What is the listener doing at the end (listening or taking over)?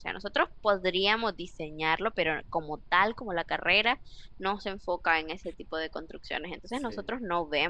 listening